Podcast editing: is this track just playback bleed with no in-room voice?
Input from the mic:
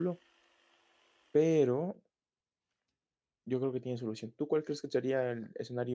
No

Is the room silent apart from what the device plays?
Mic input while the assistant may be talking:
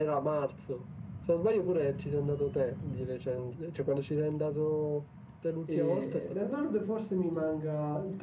No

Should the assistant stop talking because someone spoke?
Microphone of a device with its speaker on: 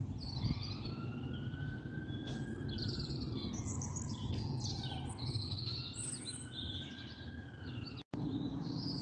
No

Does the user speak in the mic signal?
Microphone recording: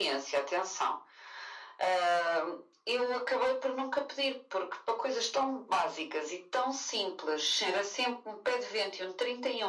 No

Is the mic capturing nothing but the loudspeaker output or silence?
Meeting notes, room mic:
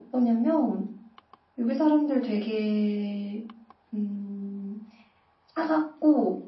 Yes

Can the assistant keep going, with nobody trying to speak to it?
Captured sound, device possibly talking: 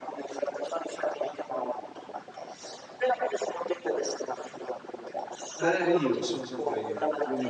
No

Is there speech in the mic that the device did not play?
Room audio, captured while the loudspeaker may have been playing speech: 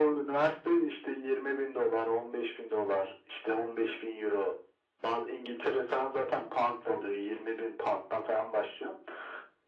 No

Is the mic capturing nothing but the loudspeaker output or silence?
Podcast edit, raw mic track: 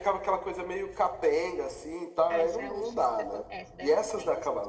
No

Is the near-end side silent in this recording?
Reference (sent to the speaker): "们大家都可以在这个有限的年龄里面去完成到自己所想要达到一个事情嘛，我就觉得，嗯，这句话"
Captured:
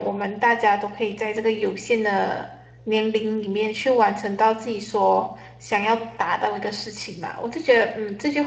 Yes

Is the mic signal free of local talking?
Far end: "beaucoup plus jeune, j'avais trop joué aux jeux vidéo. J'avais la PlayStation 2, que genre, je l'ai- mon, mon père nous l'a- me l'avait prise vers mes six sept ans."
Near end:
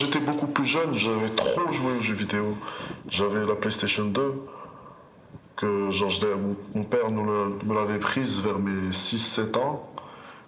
Yes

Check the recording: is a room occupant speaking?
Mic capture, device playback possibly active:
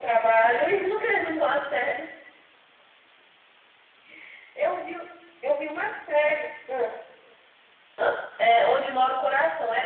No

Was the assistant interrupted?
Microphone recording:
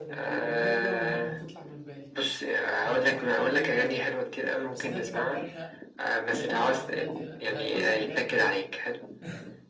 Yes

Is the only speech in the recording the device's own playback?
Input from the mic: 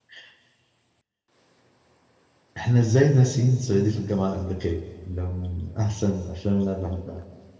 No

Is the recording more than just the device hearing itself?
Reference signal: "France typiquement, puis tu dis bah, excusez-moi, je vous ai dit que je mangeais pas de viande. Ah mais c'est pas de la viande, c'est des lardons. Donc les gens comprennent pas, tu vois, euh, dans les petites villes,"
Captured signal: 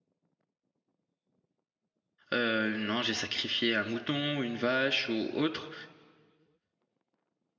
Yes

